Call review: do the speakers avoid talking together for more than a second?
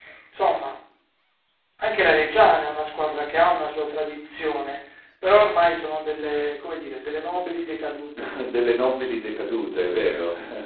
Yes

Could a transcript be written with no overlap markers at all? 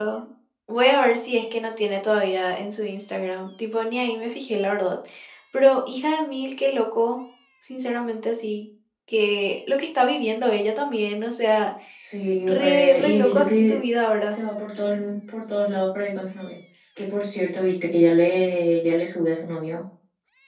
No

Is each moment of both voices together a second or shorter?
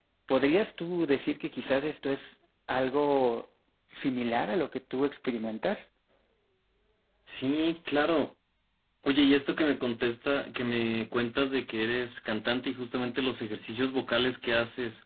Yes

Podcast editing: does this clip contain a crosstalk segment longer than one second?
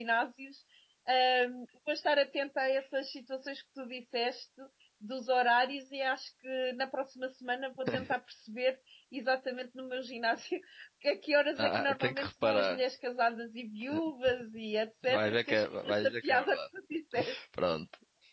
Yes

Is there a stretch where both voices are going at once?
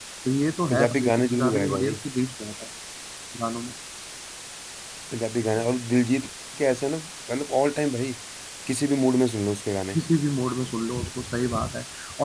Yes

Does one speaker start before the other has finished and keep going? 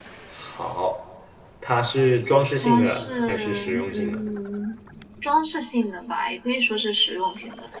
Yes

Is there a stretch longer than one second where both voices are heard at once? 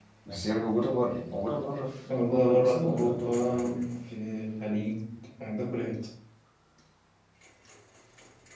Yes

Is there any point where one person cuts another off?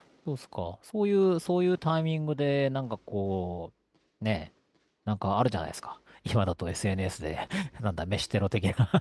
No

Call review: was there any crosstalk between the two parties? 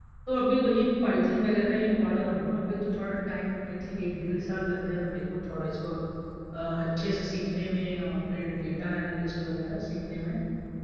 No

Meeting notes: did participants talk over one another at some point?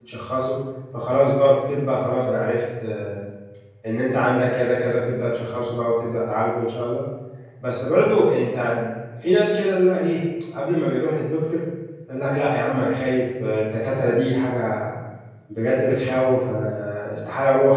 No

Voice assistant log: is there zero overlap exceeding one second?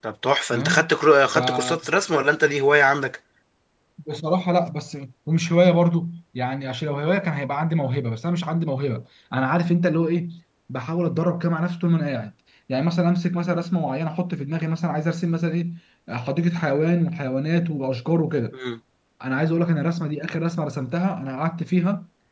Yes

